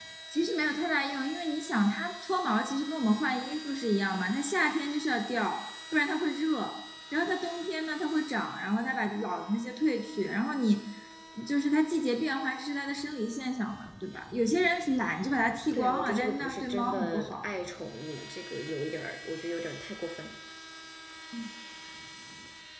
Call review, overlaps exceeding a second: present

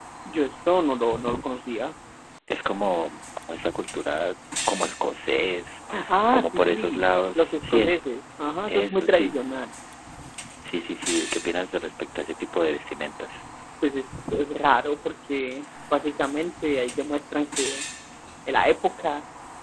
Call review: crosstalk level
present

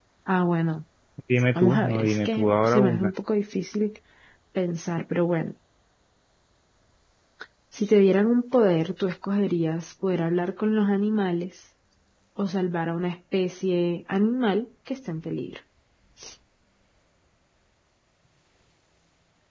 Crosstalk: present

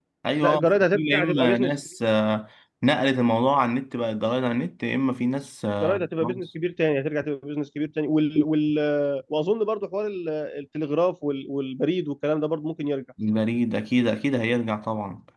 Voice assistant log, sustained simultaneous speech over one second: present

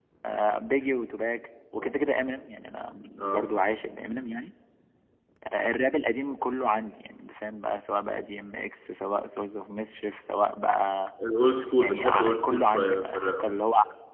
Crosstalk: present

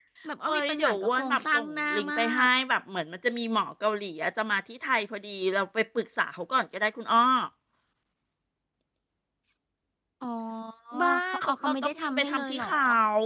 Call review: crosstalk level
present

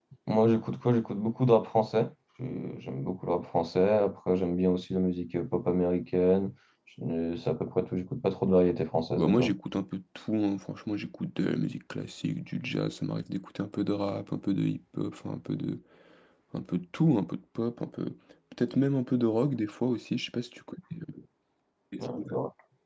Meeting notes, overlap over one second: none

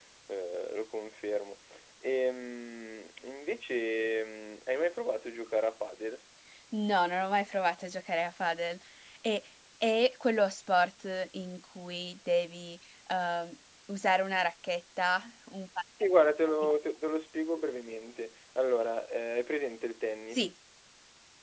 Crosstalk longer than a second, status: none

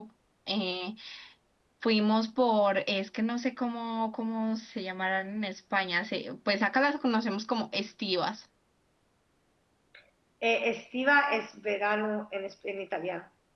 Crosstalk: none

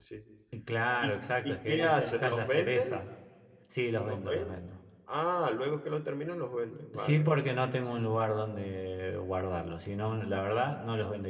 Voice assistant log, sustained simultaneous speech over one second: present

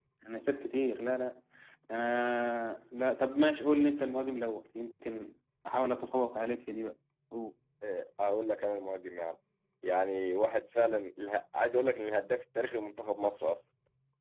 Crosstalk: none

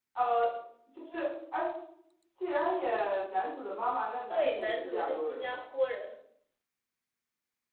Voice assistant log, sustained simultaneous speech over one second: present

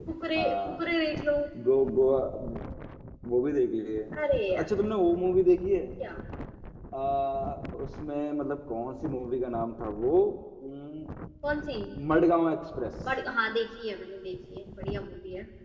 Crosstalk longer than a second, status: none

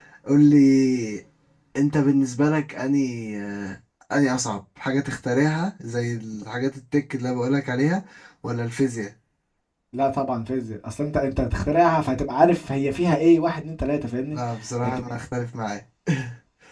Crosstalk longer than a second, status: none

